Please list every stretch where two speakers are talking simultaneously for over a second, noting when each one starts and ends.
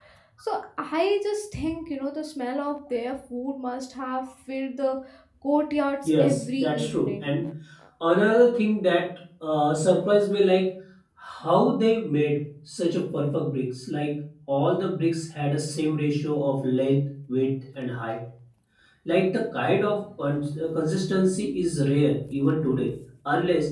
6.0-7.3

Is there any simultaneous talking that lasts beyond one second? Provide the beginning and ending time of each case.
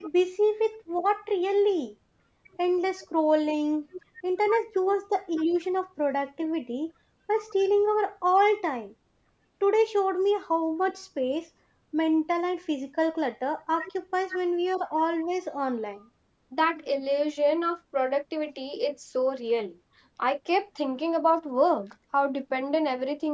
none

